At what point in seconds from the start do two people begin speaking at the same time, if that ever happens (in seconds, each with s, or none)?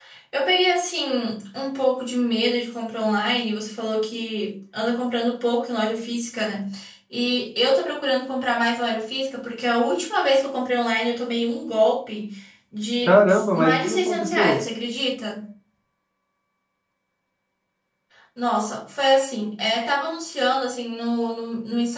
13.0 s